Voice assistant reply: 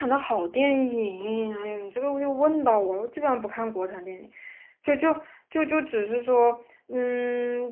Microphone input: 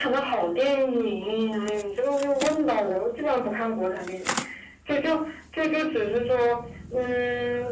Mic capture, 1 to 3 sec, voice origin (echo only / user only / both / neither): echo only